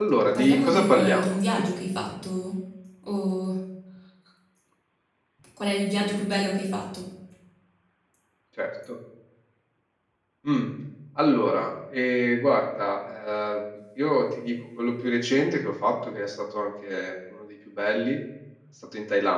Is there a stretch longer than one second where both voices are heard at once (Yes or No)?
Yes